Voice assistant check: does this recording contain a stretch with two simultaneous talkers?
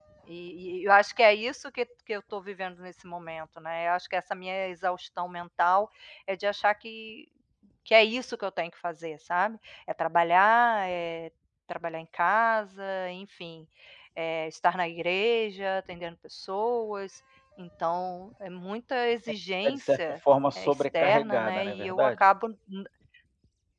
Yes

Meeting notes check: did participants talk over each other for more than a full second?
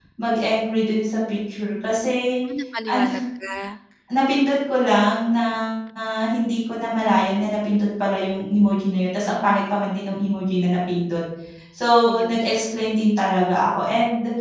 No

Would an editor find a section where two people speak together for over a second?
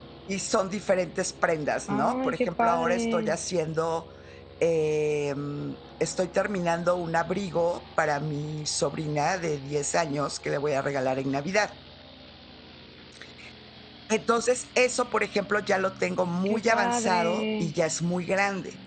Yes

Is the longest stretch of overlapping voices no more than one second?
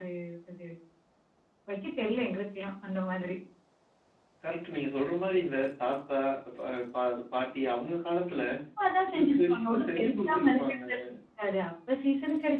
No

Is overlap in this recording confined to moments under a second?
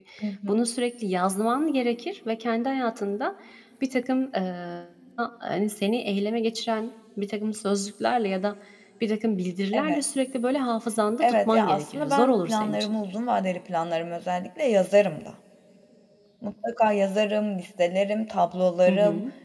No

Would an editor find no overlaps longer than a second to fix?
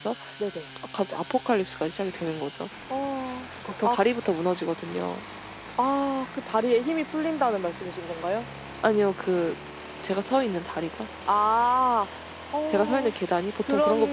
Yes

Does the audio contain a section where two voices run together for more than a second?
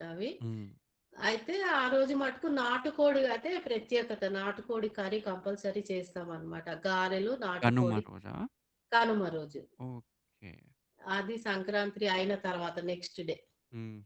No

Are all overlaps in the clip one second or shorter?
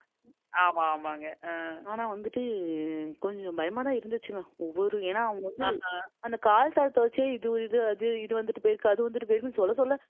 Yes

